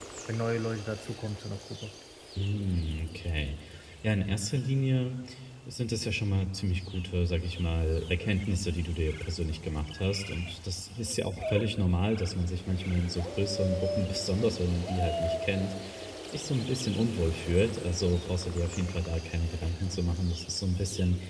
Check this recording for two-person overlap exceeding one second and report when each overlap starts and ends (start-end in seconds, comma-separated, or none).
none